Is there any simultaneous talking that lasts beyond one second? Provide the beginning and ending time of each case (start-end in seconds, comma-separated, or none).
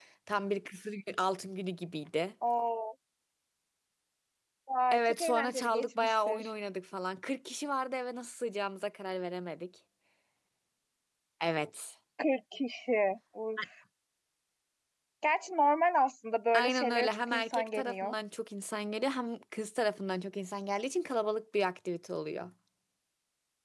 4.9-6.5, 16.5-18.1